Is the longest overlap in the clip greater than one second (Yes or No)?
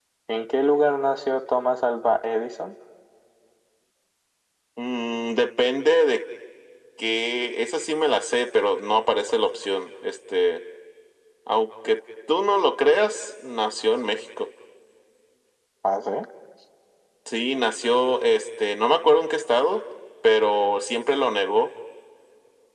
No